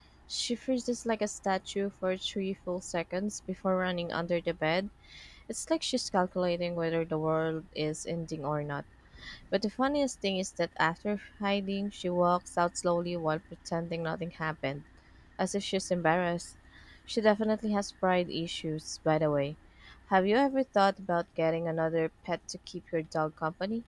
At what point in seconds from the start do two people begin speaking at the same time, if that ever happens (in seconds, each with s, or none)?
none